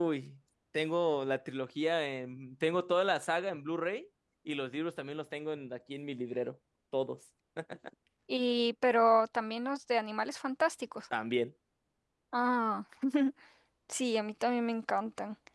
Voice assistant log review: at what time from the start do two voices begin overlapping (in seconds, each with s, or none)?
none